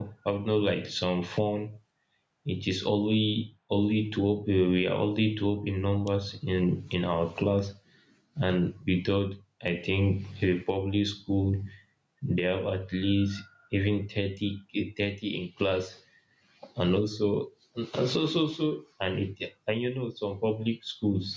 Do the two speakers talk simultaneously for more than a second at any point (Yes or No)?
No